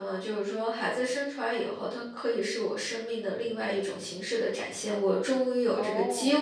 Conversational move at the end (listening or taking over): listening